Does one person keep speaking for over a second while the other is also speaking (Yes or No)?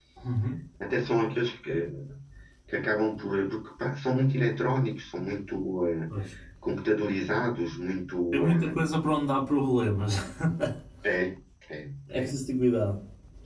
No